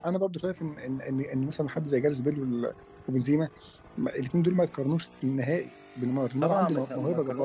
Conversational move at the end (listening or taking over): taking over